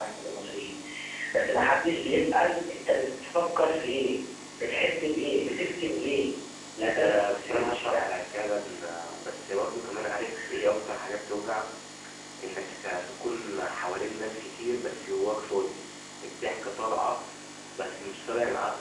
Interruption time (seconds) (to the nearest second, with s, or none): 7 s